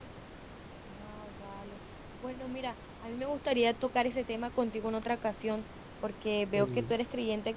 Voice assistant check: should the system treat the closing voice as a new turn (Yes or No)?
No